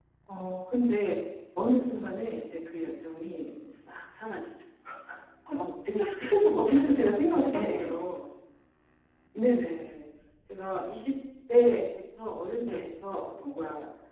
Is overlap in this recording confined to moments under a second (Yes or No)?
No